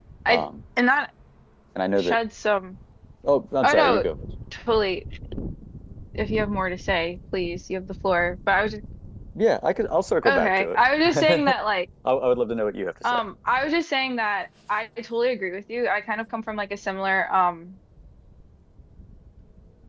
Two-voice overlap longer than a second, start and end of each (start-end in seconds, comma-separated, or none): 10.3-11.5